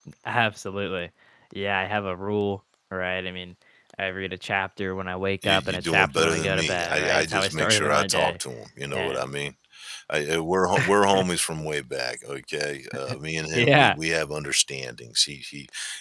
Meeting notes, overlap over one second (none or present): present